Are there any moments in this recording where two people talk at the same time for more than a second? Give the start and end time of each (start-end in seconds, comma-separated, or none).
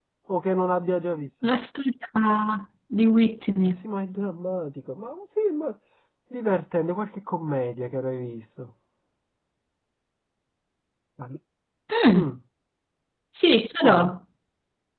none